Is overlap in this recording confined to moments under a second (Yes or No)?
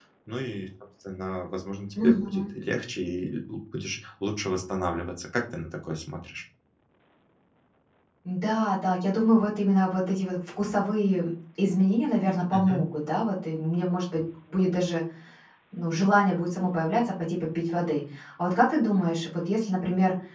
Yes